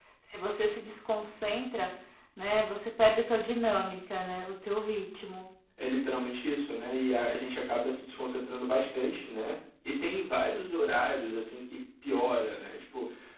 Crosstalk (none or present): none